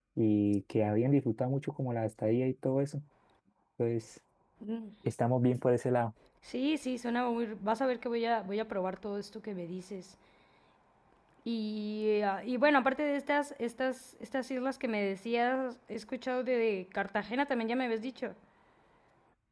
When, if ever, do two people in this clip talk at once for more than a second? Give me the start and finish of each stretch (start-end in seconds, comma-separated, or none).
none